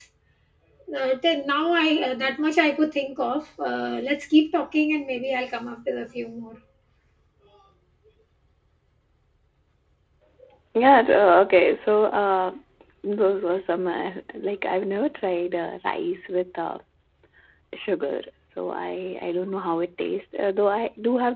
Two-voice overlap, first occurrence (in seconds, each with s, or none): none